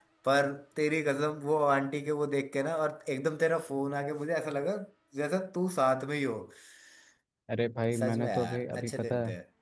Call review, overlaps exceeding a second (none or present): present